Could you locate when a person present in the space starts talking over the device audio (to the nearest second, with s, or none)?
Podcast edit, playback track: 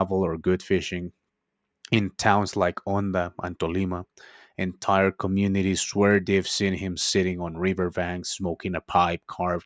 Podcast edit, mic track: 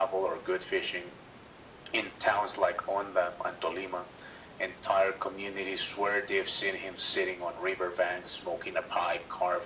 none